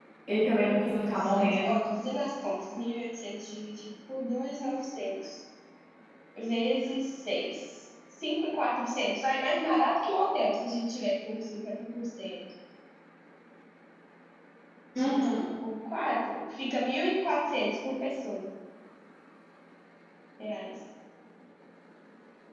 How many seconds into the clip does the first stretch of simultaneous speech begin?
0.6 s

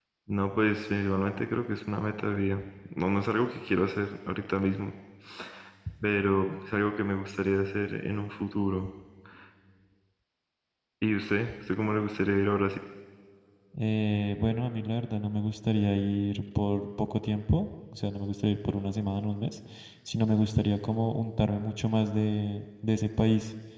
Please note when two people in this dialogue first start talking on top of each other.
none

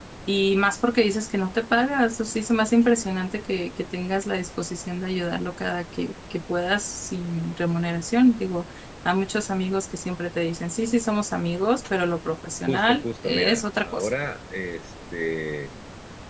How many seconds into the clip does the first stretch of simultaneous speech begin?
12.7 s

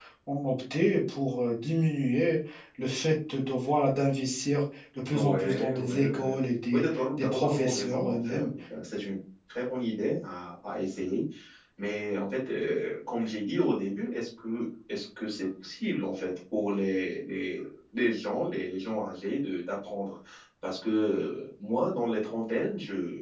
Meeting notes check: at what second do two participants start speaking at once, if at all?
5.1 s

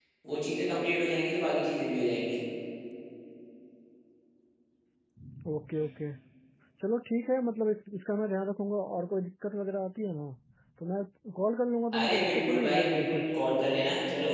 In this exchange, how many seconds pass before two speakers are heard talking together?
11.9 s

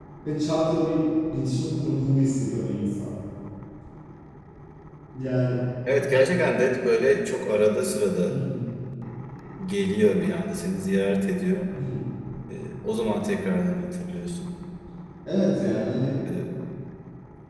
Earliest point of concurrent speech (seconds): none

